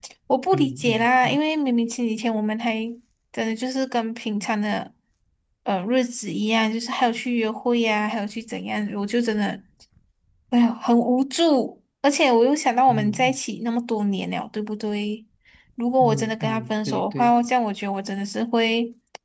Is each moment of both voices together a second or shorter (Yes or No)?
No